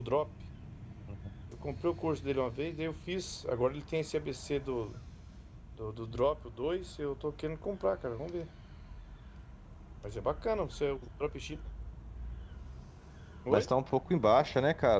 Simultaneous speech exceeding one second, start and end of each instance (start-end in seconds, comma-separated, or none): none